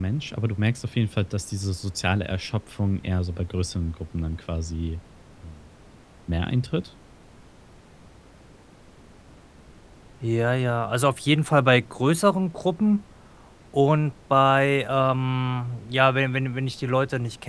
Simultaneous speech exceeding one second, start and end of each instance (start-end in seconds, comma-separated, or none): none